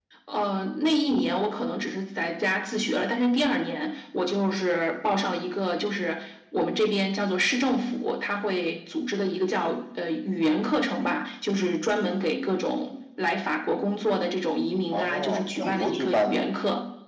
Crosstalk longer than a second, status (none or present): present